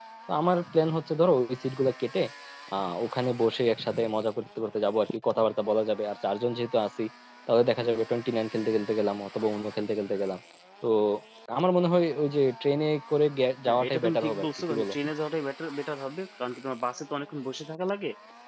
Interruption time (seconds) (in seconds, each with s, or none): 13.7 s